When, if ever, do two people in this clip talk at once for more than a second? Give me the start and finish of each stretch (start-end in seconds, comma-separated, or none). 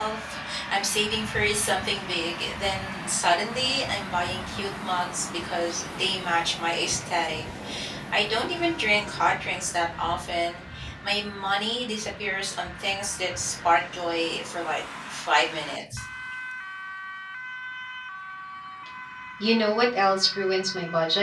none